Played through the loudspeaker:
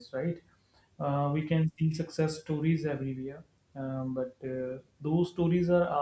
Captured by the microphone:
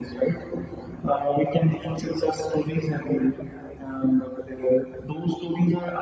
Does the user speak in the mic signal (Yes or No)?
No